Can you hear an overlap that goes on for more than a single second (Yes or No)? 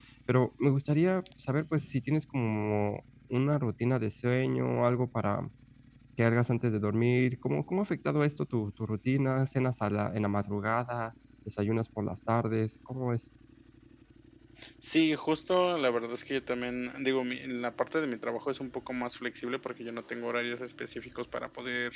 No